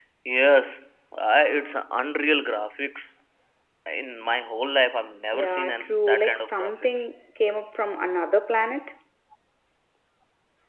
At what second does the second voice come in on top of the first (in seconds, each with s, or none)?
5.3 s